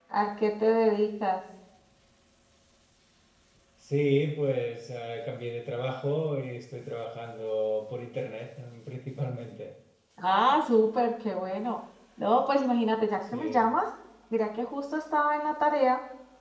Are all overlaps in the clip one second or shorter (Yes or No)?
Yes